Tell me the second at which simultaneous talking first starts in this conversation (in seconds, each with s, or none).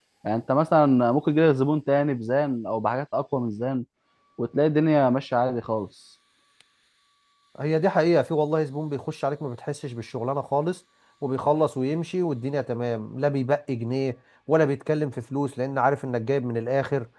none